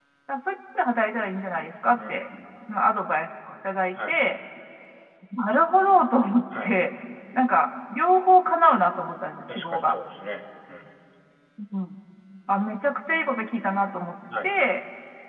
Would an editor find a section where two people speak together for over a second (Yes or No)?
No